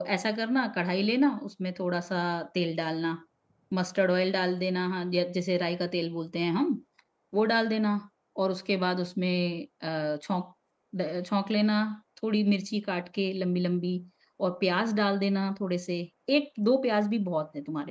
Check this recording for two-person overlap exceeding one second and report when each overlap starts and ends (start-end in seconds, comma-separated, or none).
none